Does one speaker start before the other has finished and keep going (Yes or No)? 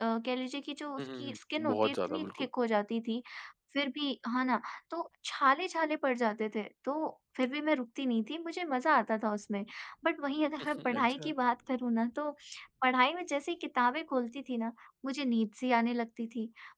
Yes